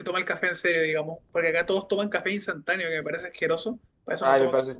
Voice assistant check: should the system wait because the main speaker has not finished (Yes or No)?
No